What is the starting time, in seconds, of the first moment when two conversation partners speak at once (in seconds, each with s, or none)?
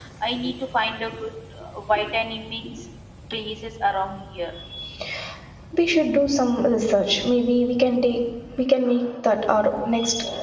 none